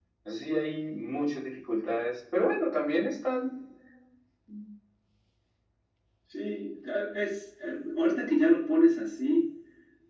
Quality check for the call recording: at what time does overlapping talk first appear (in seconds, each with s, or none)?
none